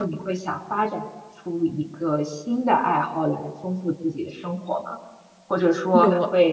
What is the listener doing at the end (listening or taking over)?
listening